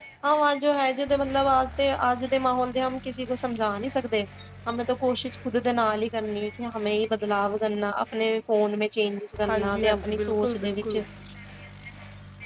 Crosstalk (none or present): present